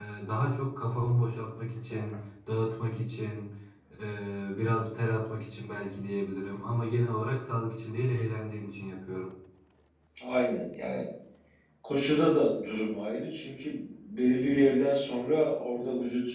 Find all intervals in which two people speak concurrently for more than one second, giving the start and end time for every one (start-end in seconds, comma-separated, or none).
none